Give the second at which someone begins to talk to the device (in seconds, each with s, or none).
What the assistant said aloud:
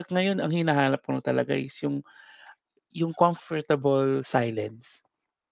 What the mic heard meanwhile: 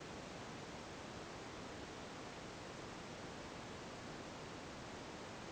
none